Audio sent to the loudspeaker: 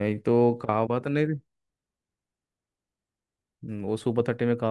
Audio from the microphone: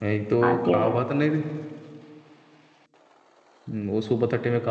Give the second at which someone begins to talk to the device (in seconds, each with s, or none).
0.5 s